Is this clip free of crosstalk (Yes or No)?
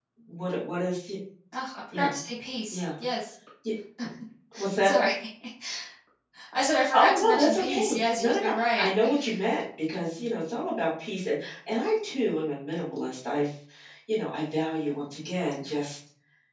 No